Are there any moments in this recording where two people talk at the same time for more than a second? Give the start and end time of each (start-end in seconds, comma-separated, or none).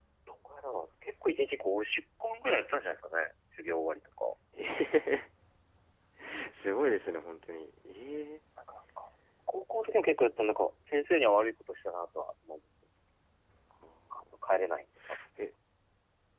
none